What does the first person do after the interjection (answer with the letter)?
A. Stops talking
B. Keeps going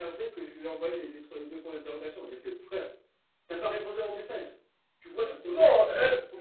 A